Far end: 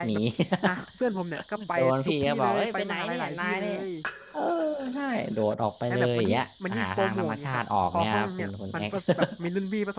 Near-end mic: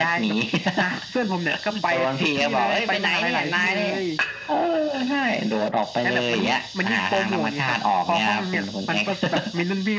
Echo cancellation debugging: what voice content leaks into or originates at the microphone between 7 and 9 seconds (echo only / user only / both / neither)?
echo only